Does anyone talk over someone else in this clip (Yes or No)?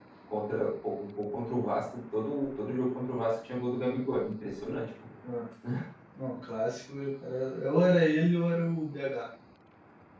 No